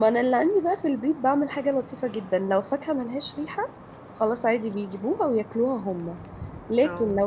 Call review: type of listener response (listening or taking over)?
listening